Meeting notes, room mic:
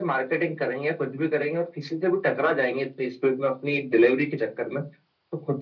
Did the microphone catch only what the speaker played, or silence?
Yes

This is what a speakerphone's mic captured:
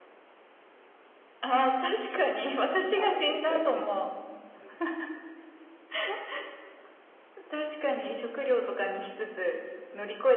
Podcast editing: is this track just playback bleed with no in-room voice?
No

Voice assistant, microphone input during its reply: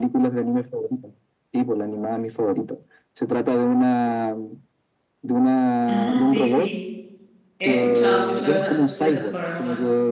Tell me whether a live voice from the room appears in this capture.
Yes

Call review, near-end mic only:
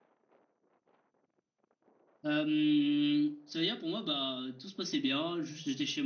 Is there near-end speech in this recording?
Yes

